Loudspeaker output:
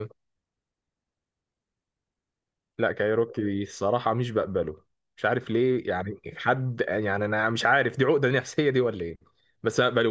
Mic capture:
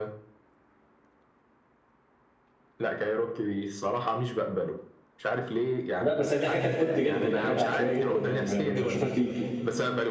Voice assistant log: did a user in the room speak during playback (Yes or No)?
Yes